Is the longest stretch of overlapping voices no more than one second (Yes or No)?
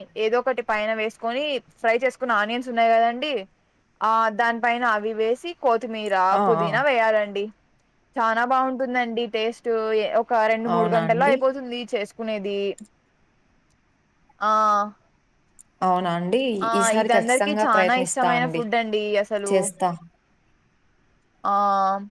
No